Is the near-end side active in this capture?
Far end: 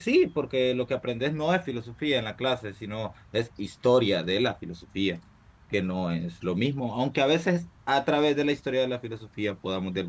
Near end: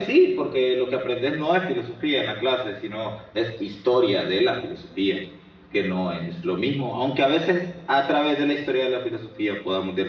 No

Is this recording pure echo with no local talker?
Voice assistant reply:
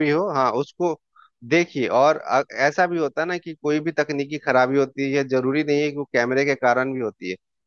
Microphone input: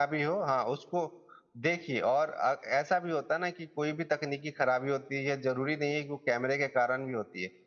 Yes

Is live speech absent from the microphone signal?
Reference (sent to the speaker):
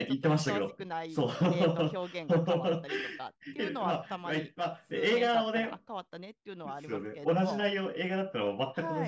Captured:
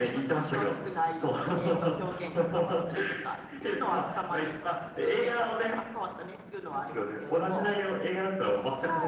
Yes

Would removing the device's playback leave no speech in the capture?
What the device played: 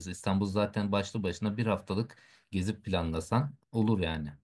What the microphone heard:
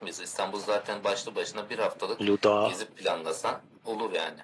No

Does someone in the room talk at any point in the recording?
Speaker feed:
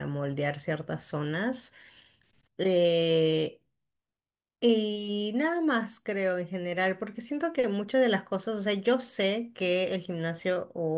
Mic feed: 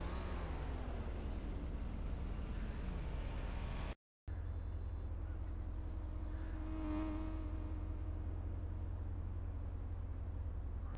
No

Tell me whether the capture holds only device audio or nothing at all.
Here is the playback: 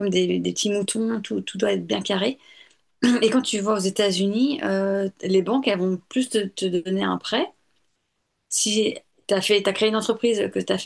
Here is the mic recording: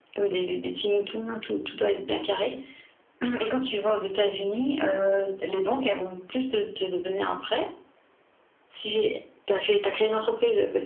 Yes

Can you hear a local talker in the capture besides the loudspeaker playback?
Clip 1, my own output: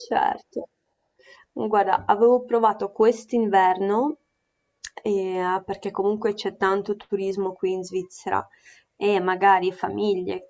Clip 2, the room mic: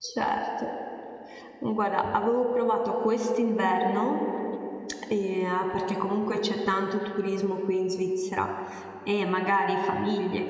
No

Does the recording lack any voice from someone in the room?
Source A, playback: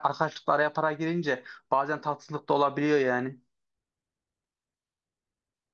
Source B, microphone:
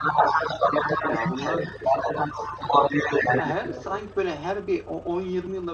No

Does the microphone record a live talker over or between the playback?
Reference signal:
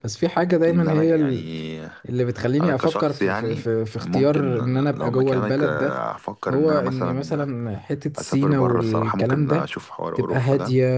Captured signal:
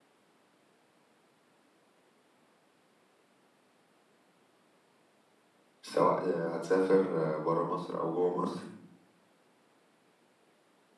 Yes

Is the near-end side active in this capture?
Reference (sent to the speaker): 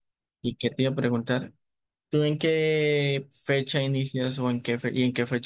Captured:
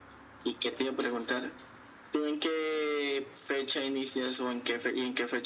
No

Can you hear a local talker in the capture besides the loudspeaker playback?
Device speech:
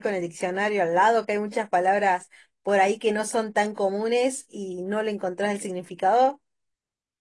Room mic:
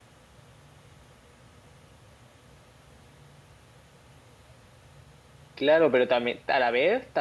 Yes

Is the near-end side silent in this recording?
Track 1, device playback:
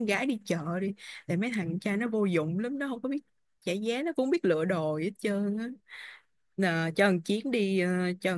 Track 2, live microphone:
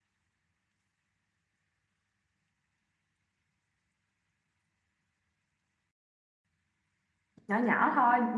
No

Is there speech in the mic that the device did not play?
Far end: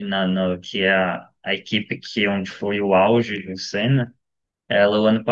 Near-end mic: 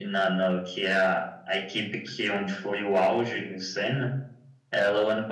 No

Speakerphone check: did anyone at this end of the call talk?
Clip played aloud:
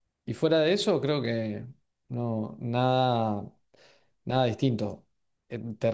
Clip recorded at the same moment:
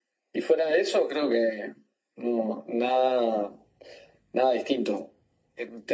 No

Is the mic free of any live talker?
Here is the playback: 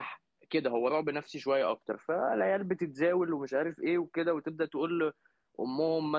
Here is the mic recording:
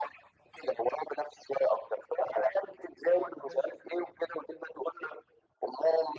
No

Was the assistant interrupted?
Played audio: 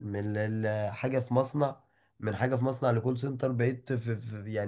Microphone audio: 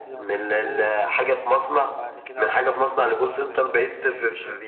Yes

